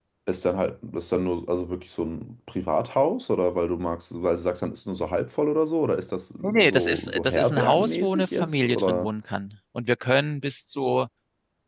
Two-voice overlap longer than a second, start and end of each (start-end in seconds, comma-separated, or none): 6.4-9.1